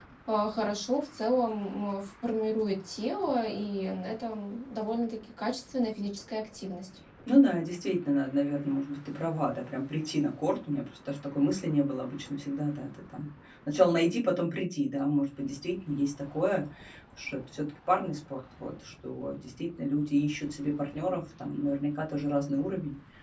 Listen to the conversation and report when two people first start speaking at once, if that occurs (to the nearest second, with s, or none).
none